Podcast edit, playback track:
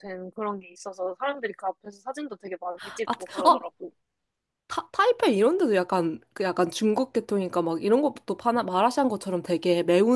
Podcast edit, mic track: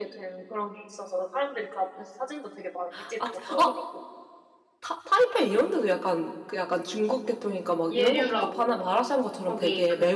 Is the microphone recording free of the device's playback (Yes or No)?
No